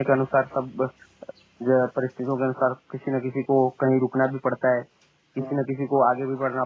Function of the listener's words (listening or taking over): listening